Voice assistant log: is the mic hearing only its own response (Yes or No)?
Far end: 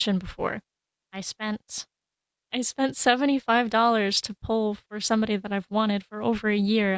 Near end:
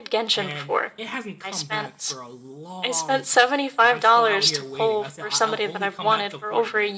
No